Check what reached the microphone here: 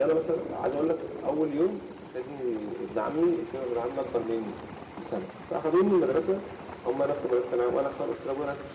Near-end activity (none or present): none